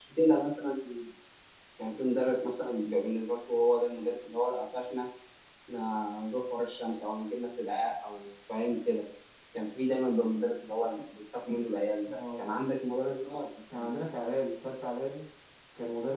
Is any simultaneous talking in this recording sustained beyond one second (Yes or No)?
No